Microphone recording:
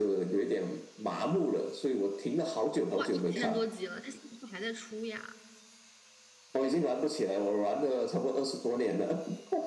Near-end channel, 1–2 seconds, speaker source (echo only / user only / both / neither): echo only